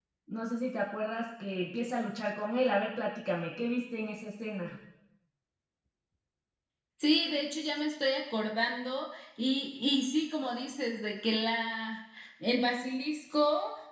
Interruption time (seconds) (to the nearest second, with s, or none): none